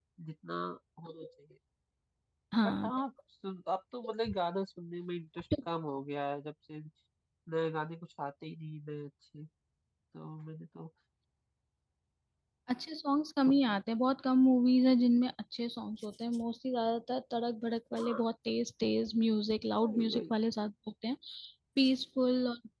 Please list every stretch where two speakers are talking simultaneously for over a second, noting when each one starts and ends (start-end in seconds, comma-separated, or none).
none